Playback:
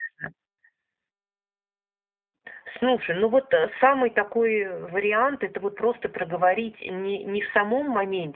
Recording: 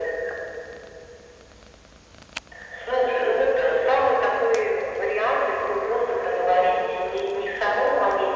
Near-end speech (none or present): none